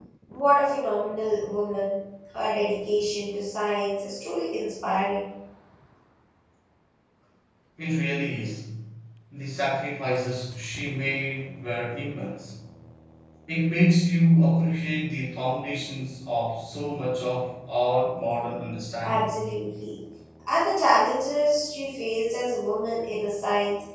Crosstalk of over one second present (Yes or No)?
No